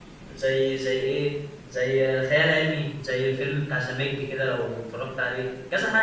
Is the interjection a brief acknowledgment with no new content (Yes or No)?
No